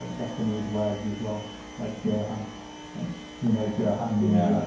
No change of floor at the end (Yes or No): No